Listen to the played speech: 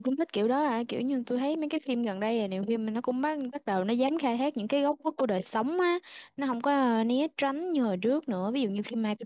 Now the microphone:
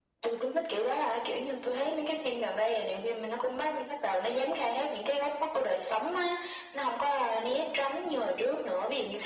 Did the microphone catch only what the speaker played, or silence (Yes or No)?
Yes